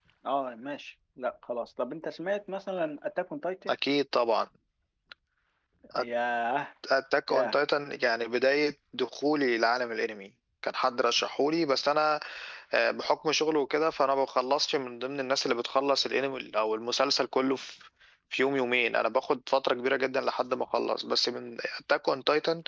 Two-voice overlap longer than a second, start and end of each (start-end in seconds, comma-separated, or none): none